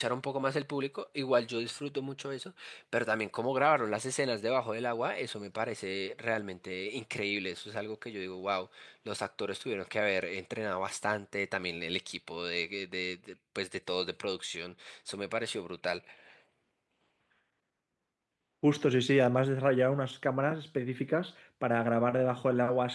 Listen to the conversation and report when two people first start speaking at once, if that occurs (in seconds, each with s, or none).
none